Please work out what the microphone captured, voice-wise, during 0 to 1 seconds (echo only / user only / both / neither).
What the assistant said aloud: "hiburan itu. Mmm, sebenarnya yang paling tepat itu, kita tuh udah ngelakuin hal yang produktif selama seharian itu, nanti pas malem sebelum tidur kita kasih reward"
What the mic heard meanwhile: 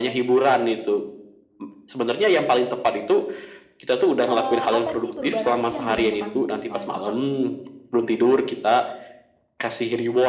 echo only